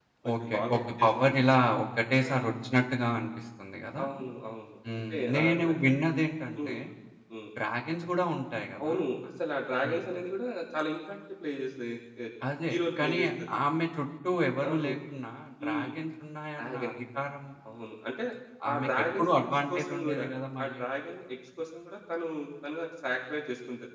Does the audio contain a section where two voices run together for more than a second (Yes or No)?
Yes